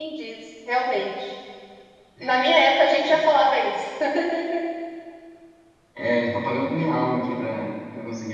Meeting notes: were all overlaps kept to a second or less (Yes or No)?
Yes